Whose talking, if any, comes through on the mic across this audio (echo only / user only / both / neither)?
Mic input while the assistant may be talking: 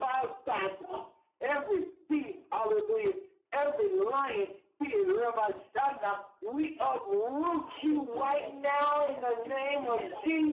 both